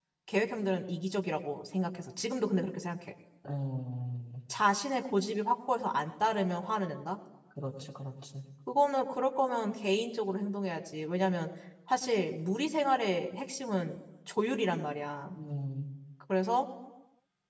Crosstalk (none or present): none